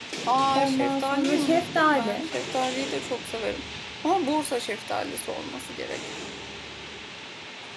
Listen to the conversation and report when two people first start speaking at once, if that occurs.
1 s

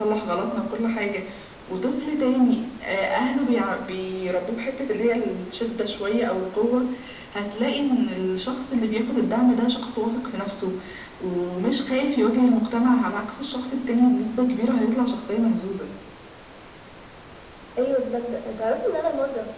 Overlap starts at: none

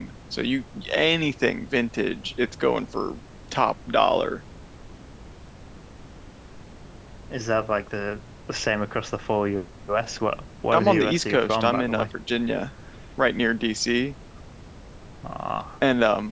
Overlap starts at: 11 s

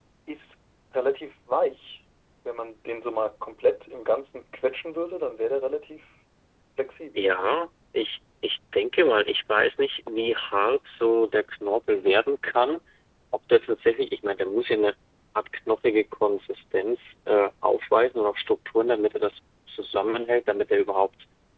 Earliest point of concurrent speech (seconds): none

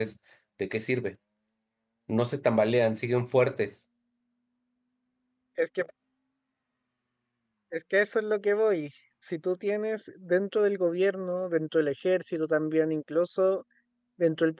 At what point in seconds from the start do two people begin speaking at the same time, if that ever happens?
none

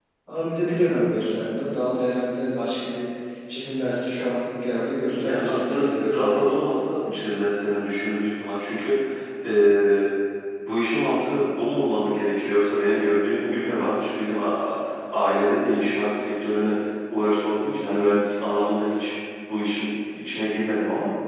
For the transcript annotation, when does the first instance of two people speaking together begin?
5 s

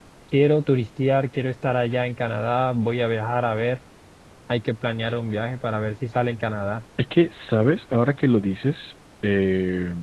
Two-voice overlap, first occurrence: none

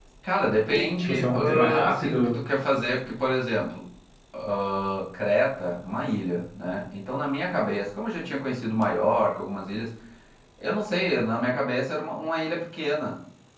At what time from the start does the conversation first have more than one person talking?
1 s

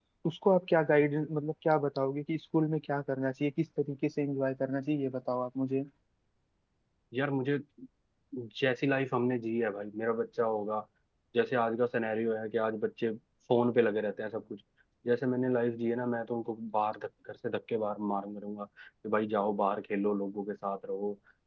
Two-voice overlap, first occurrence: none

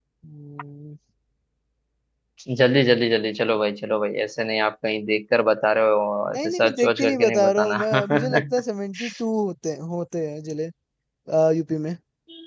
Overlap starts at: 6 s

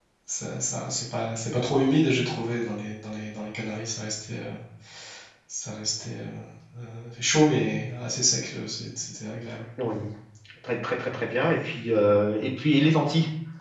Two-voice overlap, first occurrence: none

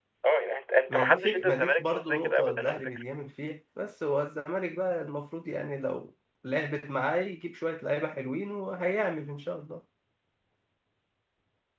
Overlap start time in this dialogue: 1 s

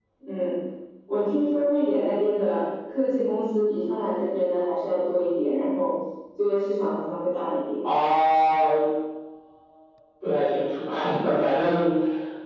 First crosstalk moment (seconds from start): none

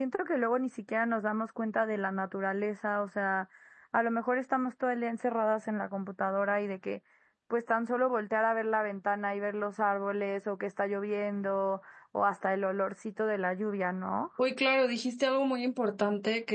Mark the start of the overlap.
none

